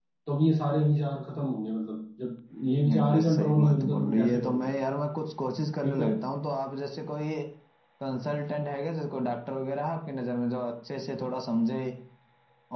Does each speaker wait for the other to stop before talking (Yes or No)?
No